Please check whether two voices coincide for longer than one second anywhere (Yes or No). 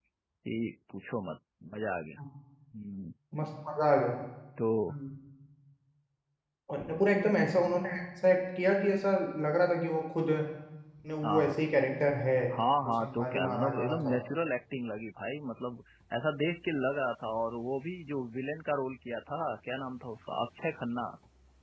Yes